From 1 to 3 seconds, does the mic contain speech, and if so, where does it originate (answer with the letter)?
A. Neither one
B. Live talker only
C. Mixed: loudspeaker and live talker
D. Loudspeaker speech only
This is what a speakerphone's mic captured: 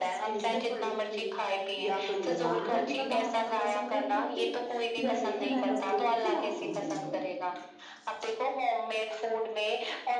C